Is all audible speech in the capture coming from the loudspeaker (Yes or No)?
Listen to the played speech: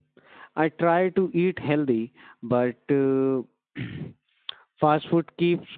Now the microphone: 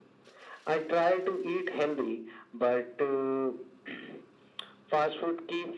Yes